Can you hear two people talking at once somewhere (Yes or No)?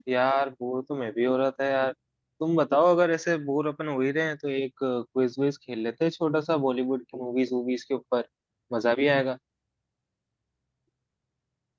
No